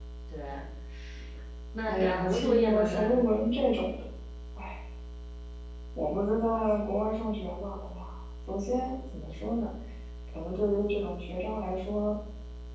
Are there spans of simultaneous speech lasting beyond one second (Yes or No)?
Yes